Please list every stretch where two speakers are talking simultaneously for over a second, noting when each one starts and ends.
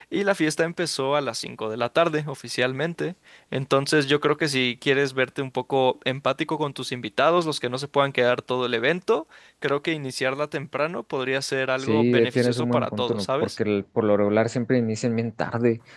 11.8-13.5

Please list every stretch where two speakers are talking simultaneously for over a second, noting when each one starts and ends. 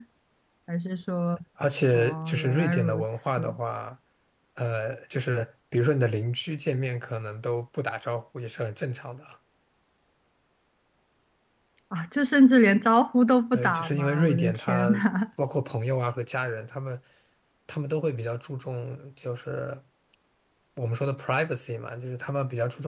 1.9-3.6, 13.5-14.9

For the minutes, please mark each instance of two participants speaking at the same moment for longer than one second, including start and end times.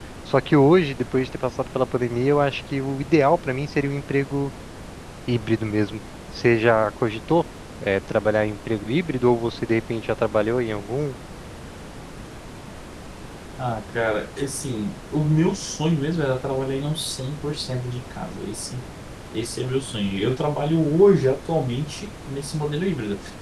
none

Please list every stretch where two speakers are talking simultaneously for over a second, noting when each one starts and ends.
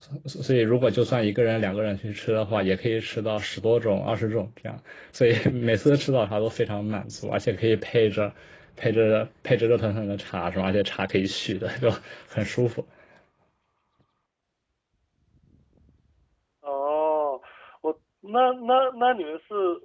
none

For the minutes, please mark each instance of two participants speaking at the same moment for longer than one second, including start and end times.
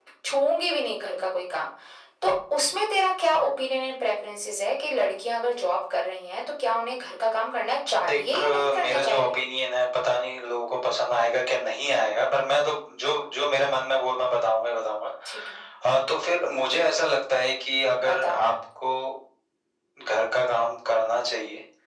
8.1-9.3

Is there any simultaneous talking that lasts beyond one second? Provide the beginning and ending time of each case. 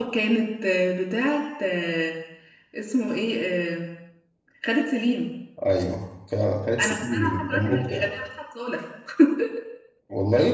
6.8-8.1

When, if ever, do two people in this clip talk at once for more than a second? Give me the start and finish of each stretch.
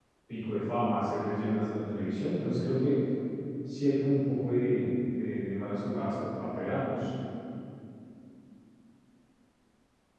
none

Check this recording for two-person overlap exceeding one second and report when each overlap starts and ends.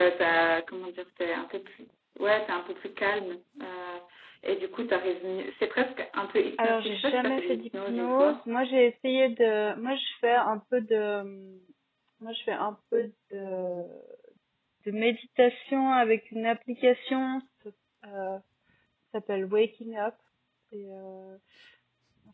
6.6-8.4

